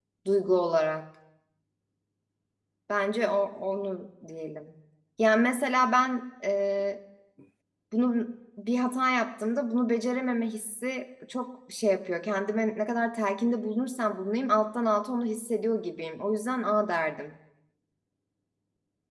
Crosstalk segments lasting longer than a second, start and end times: none

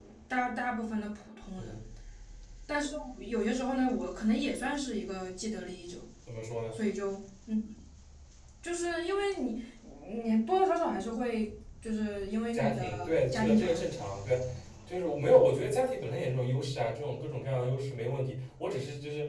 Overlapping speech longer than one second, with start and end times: 12.5-13.8

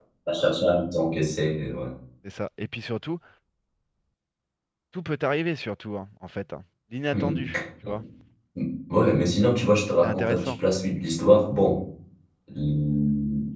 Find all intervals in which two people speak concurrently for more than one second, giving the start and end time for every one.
none

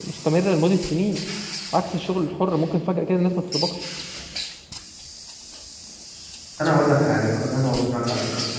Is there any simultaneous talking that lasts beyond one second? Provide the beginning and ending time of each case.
none

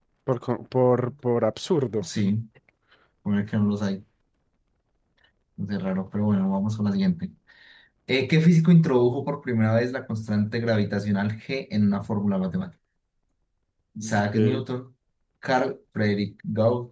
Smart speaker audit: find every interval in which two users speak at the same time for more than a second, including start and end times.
none

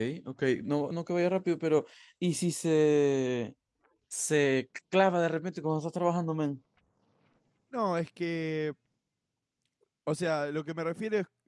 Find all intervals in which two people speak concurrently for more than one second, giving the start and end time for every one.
none

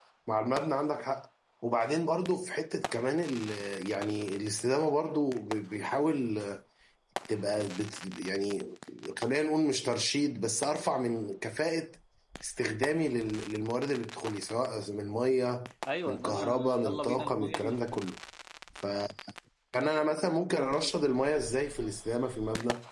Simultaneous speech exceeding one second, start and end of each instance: 16.1-17.9

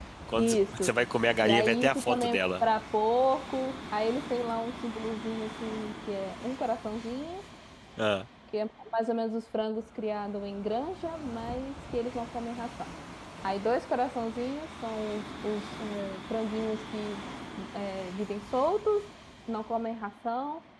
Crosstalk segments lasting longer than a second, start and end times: 1.4-2.6

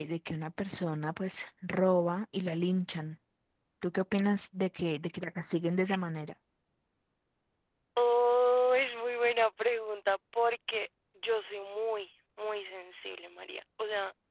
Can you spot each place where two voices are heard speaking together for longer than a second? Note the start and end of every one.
none

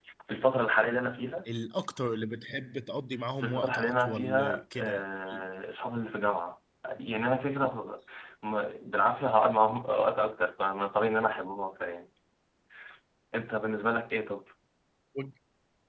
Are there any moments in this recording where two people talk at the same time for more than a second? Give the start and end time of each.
3.4-5.0

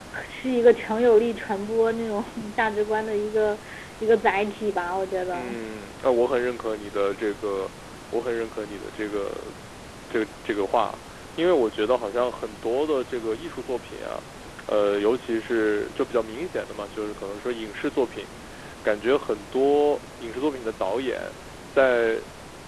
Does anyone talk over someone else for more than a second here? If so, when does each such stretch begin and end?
none

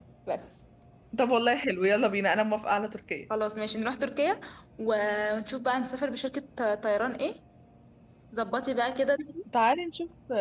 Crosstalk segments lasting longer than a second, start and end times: none

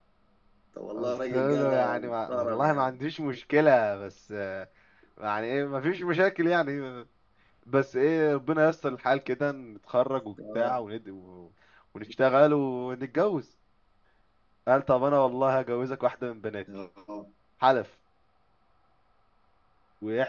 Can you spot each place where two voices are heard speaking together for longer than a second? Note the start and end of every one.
0.9-2.9

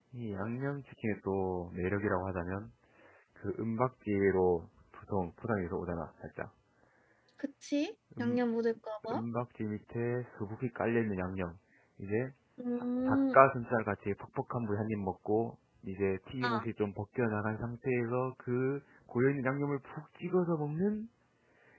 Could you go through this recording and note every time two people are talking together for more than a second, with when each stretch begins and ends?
none

